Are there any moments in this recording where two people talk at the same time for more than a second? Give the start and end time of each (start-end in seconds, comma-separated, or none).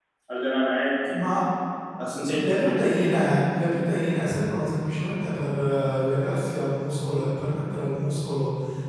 none